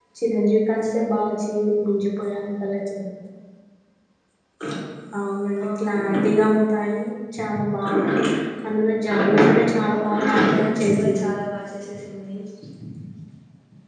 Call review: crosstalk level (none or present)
present